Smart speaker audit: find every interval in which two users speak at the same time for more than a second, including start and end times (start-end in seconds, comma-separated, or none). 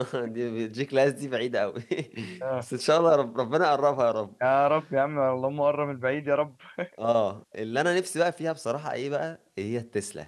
none